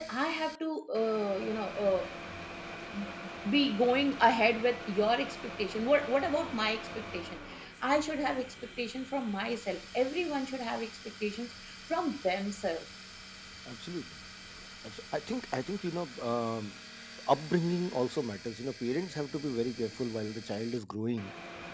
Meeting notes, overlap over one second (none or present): none